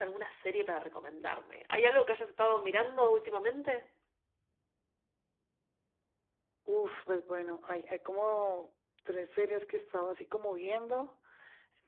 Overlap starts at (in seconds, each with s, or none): none